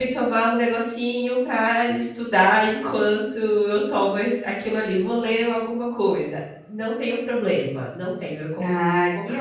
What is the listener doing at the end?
taking over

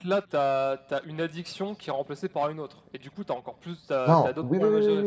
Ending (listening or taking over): taking over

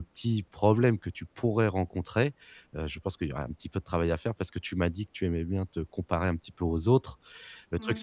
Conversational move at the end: listening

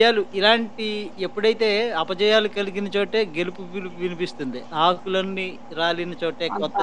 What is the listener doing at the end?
taking over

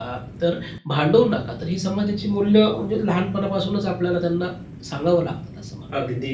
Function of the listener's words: taking over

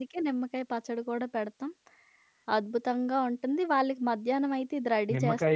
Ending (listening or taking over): taking over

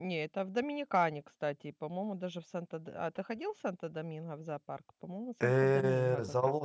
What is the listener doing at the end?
taking over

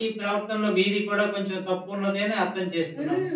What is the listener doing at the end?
taking over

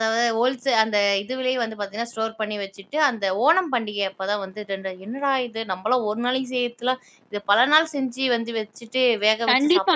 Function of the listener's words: taking over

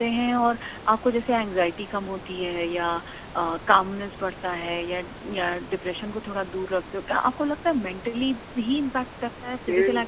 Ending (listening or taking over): taking over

